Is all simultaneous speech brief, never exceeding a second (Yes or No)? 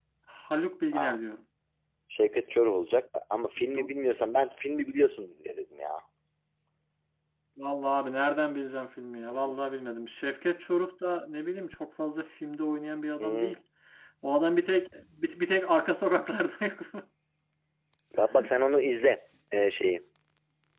Yes